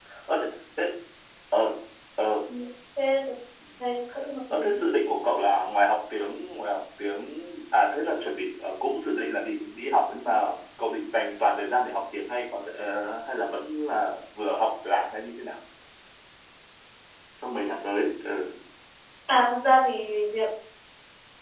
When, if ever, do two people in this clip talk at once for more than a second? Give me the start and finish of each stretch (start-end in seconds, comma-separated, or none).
none